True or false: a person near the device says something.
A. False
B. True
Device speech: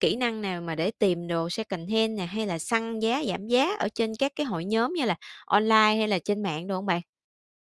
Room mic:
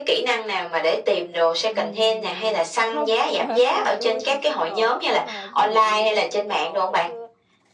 B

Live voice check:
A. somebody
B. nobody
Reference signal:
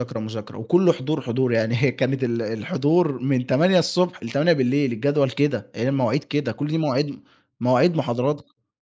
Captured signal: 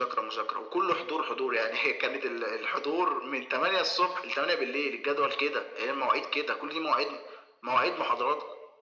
B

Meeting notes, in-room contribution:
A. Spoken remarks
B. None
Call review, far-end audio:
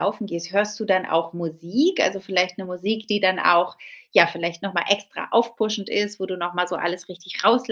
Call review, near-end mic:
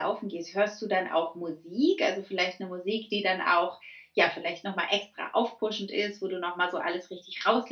B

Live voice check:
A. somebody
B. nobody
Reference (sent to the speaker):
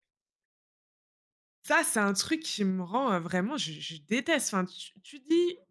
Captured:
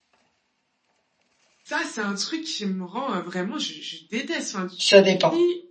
A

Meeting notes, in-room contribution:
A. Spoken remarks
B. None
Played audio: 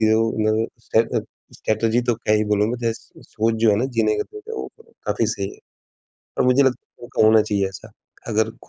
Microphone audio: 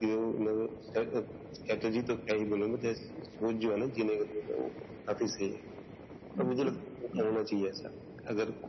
A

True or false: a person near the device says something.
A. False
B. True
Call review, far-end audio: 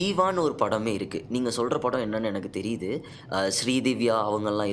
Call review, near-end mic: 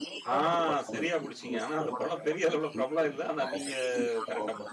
B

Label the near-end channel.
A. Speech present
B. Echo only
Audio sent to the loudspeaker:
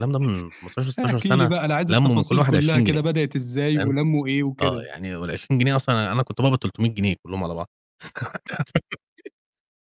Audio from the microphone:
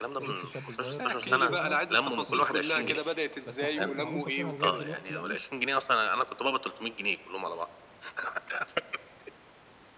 A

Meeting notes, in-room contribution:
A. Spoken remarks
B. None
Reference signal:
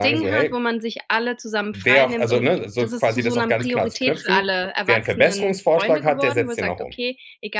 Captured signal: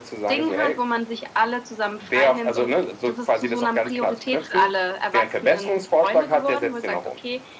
B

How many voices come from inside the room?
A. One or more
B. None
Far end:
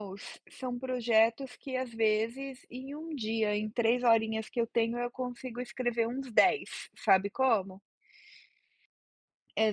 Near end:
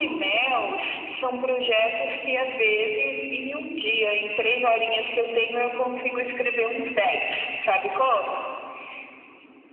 B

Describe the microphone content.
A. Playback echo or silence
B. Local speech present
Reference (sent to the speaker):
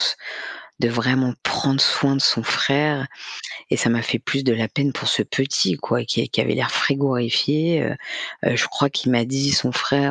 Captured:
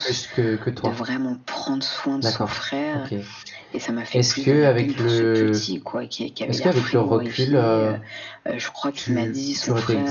B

